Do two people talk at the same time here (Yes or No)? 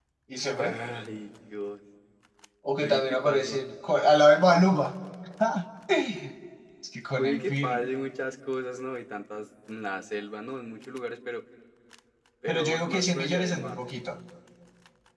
Yes